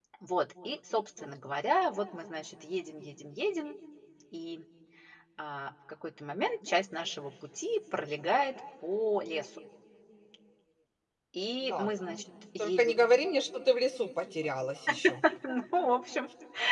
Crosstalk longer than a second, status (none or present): none